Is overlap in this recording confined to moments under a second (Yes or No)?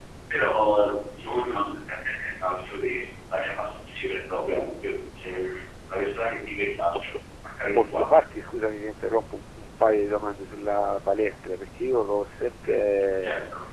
Yes